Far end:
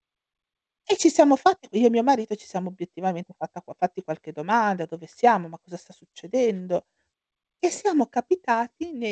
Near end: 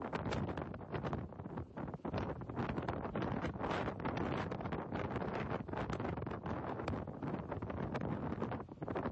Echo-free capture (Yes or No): Yes